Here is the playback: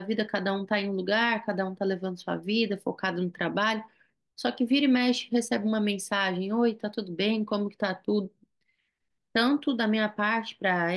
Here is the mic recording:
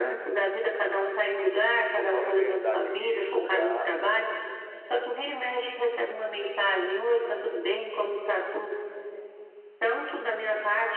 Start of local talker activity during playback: 1.8 s

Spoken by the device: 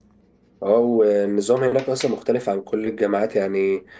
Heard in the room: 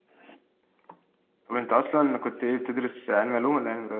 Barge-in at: 1.5 s

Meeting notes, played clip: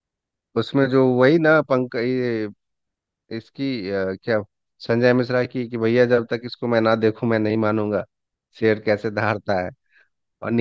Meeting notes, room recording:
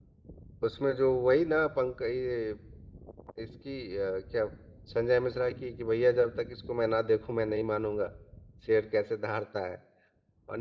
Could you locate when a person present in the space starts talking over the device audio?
none

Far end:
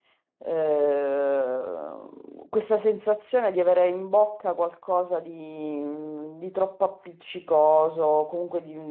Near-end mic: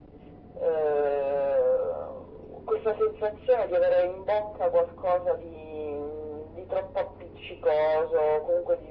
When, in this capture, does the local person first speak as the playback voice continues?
none

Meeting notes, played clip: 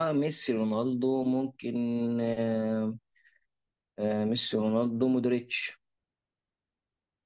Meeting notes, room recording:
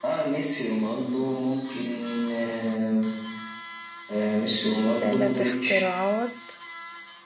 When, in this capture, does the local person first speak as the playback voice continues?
5.0 s

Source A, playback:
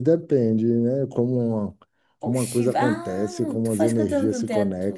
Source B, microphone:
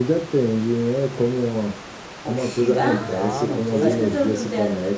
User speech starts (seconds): 2.6 s

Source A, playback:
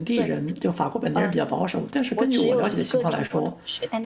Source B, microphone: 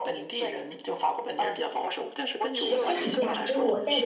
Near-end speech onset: 2.6 s

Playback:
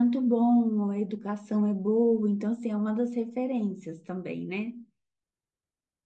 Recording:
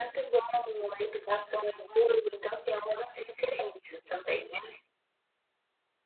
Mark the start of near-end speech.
none

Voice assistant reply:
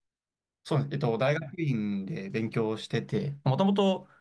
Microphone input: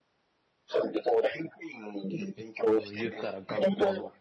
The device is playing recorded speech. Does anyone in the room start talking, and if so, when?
2.7 s

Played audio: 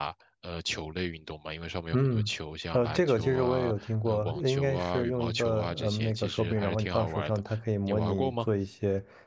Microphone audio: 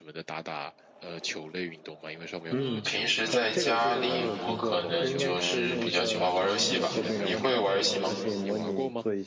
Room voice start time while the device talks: 2.5 s

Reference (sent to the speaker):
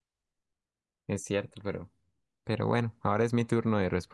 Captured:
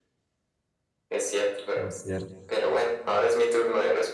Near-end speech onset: 1.8 s

